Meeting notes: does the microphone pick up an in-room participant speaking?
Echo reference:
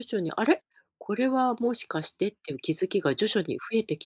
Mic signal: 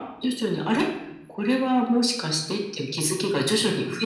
No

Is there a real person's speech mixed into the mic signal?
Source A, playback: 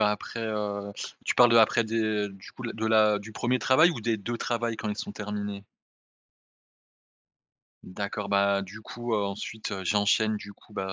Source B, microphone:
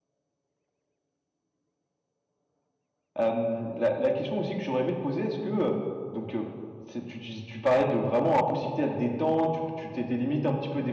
Yes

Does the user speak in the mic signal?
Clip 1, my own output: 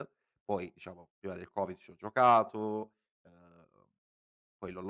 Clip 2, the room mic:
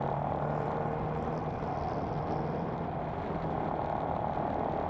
No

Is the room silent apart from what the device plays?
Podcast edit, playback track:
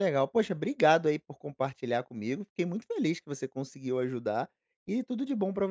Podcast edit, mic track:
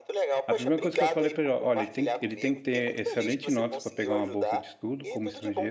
No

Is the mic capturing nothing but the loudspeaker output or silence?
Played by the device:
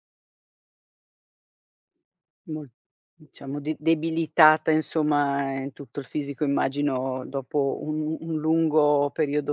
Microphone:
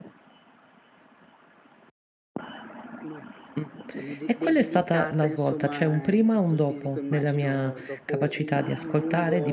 No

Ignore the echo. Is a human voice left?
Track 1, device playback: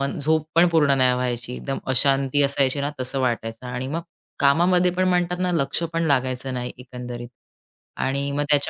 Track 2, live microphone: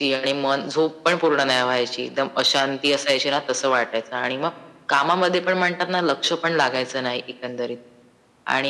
No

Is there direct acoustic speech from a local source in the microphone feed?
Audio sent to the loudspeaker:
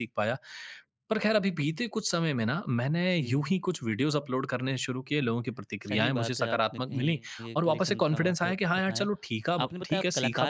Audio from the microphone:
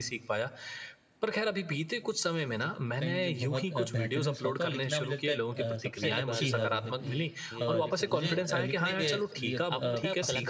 Yes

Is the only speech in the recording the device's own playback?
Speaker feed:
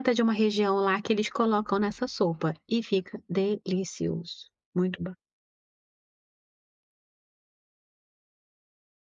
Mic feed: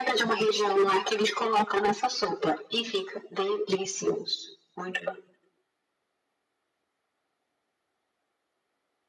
Yes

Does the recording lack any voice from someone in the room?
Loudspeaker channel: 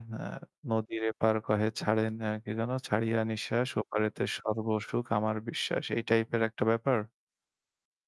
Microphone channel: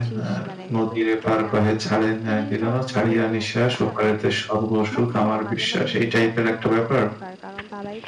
No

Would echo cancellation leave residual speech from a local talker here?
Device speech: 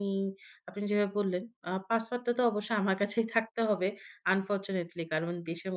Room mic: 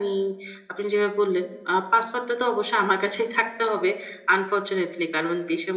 No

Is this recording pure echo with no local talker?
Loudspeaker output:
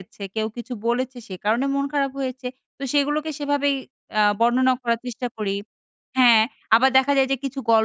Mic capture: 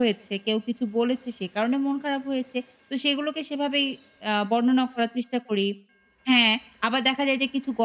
Yes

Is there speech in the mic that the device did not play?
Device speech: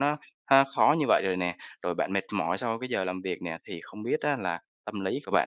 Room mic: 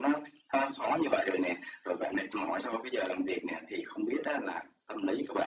No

